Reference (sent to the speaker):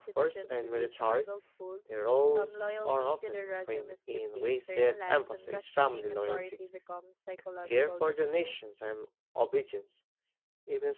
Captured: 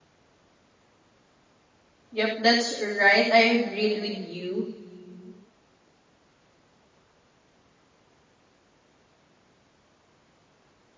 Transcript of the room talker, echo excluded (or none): Yep, that's right. I agreed with you.